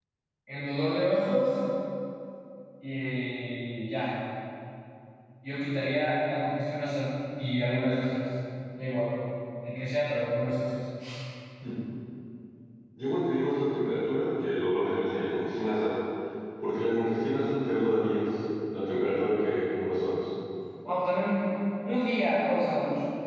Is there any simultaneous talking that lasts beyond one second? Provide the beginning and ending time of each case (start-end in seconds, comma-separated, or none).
none